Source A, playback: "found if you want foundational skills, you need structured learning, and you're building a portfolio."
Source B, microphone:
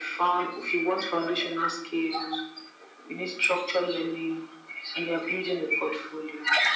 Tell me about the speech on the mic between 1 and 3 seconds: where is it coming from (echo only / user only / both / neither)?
echo only